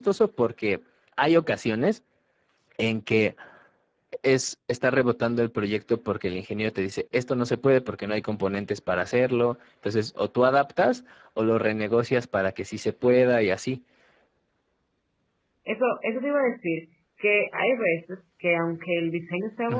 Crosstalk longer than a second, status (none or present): none